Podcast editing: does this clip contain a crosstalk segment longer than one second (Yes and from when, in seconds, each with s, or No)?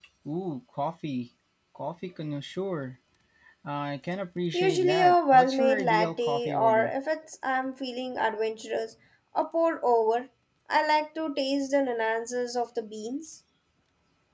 Yes, from 4.5 s